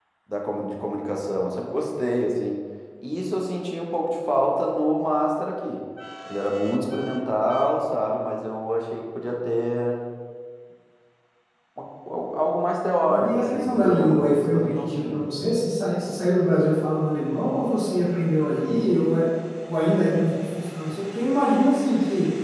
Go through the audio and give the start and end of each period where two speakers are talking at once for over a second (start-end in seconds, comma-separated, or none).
13.0-15.3